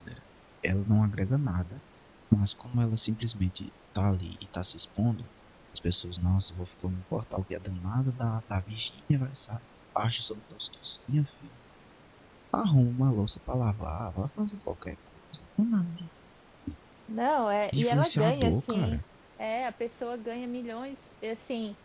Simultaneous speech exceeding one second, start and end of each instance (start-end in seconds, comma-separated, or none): 17.7-19.0